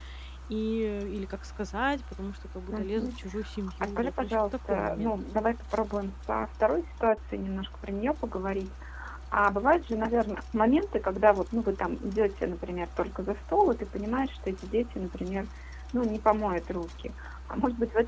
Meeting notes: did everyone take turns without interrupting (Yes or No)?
No